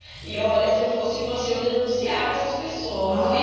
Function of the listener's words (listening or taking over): taking over